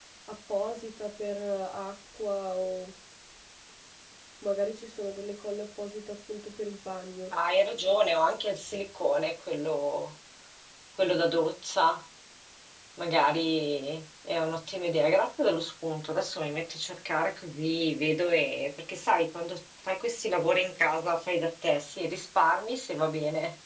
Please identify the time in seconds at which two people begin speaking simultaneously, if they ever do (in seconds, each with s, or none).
none